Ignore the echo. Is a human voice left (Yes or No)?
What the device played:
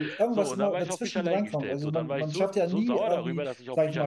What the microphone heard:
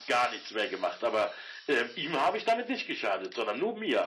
Yes